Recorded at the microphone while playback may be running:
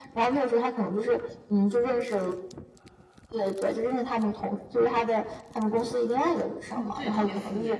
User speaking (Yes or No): Yes